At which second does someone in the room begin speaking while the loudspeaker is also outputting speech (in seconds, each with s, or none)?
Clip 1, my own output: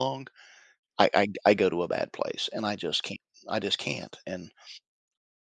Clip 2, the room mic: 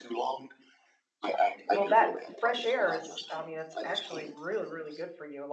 1.7 s